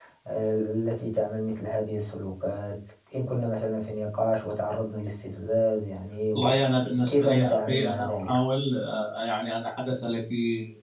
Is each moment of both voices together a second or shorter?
No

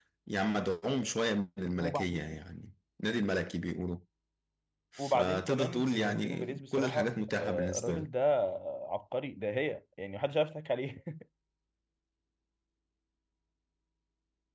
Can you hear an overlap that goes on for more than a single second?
Yes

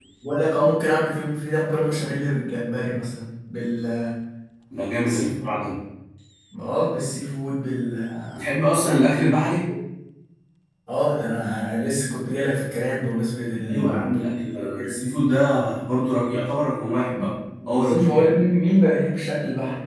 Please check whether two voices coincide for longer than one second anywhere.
Yes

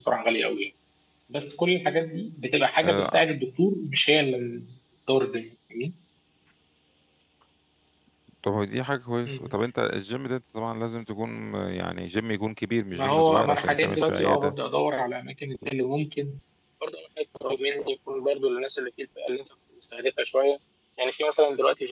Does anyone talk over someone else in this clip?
Yes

